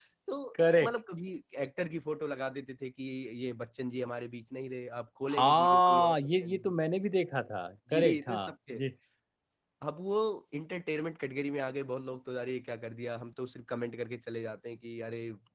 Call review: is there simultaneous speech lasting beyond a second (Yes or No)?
Yes